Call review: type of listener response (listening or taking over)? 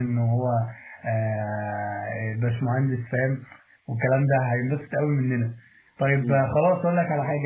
listening